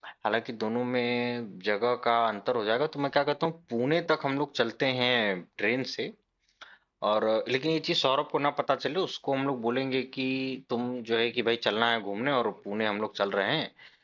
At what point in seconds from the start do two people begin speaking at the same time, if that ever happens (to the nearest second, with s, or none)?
none